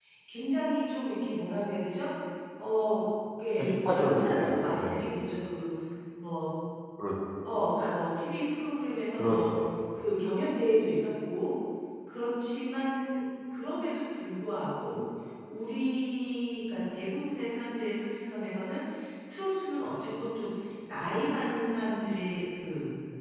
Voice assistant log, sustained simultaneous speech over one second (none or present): present